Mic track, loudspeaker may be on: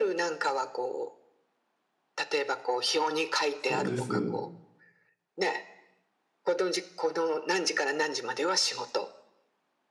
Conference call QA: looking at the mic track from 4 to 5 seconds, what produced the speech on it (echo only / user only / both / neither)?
both